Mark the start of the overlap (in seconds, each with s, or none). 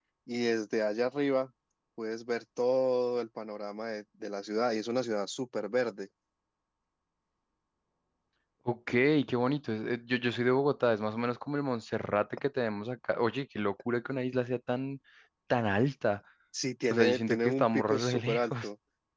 16.9 s